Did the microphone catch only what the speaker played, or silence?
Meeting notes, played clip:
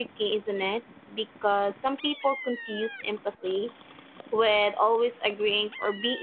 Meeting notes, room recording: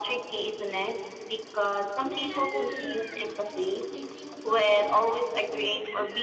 No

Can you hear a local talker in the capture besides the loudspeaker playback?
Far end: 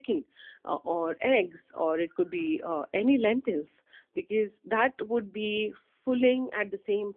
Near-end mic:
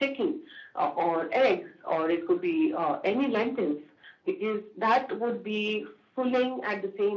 No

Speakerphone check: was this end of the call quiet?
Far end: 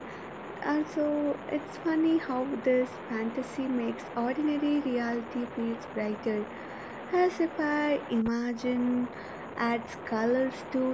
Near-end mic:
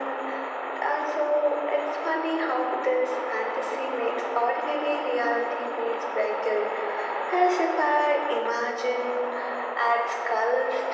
Yes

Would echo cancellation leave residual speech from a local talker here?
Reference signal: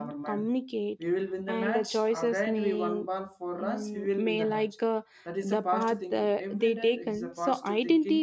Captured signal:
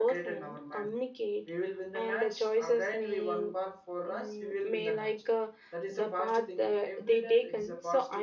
No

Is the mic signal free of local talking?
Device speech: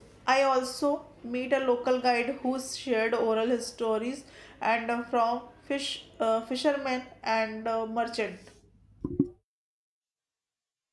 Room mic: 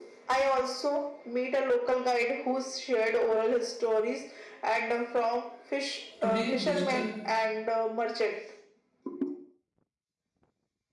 No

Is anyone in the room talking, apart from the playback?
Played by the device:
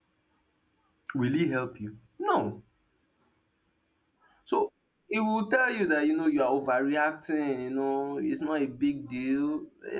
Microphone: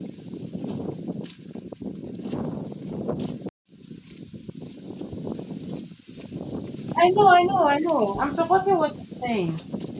Yes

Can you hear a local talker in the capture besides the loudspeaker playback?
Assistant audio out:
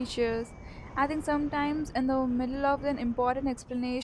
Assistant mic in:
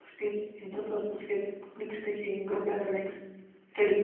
Yes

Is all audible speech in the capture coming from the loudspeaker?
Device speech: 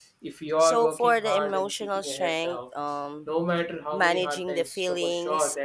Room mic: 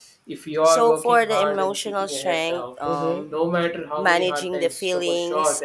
No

